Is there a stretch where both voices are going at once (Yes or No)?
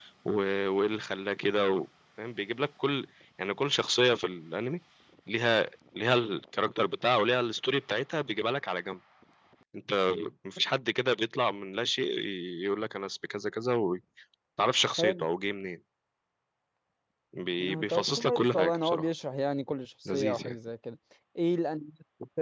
Yes